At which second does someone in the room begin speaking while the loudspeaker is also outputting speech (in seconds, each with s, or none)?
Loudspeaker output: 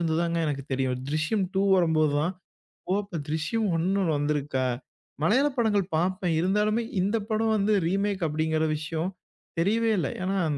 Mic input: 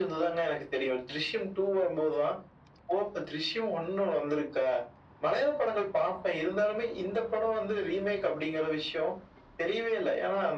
none